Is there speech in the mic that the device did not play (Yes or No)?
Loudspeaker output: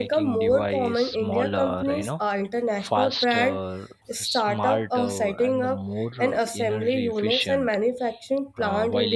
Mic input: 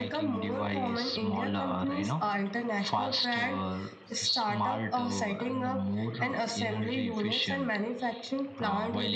No